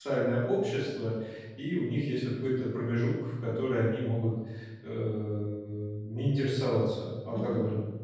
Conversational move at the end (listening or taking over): taking over